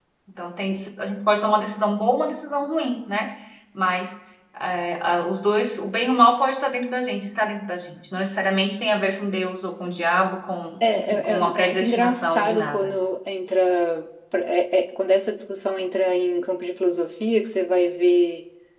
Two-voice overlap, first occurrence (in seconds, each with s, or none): 10.8 s